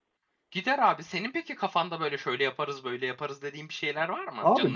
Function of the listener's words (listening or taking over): taking over